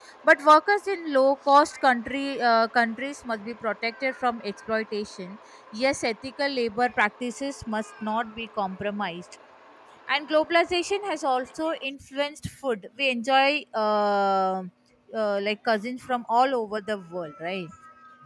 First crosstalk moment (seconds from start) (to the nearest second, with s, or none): none